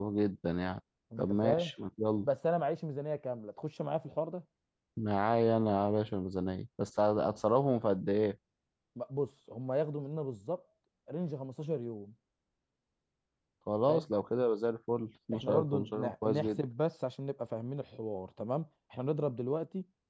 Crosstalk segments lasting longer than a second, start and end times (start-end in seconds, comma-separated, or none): 15.3-16.6